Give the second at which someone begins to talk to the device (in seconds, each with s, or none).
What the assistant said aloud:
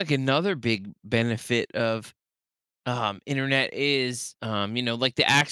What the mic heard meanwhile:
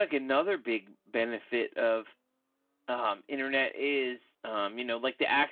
none